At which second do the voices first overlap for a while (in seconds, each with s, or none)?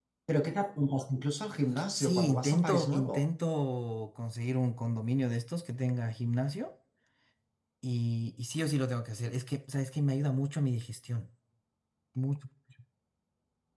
2.0 s